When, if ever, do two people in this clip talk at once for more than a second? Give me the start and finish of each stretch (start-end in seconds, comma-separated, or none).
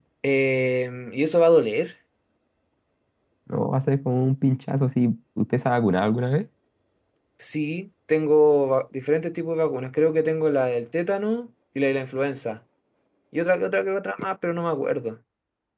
none